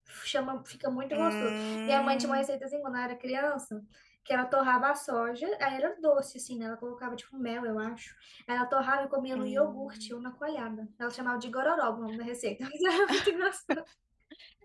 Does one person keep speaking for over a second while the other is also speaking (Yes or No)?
Yes